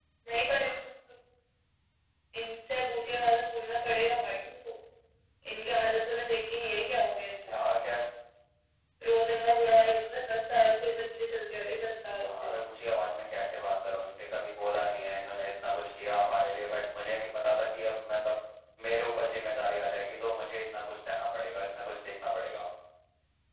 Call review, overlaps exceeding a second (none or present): none